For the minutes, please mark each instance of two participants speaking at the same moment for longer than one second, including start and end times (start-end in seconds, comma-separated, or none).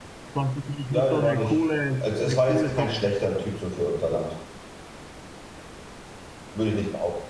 0.9-3.2